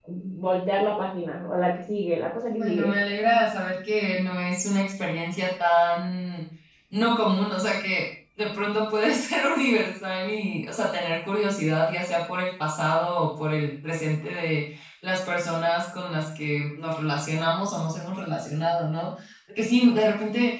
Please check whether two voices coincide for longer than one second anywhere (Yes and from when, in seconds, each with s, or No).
No